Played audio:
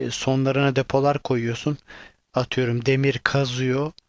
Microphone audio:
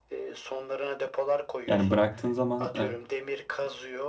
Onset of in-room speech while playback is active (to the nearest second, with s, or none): 2 s